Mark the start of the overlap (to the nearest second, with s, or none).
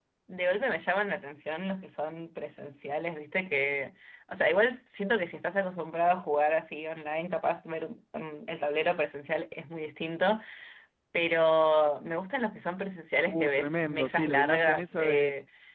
13 s